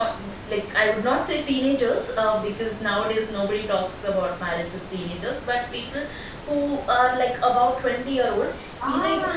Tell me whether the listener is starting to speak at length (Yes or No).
No